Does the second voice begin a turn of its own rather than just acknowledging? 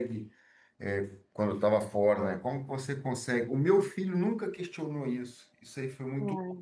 No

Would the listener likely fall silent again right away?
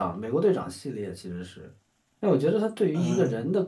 Yes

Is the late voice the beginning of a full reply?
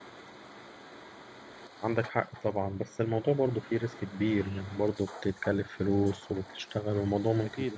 Yes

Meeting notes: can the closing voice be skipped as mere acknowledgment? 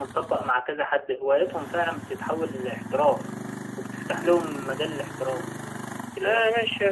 No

